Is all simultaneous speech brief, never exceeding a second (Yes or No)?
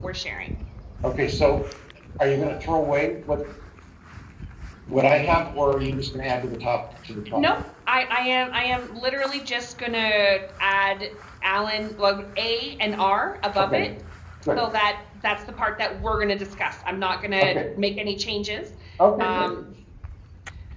Yes